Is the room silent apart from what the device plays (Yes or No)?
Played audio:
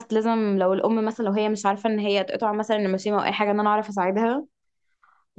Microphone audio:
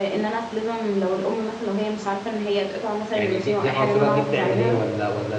No